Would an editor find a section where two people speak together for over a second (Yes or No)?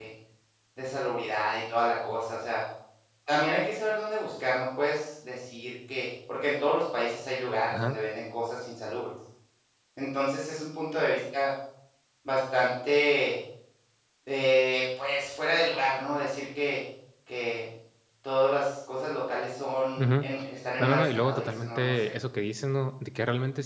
Yes